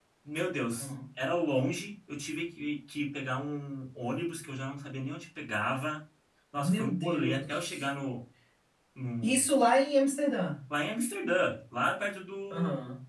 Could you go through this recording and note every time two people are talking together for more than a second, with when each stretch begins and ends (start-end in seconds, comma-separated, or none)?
6.5-7.8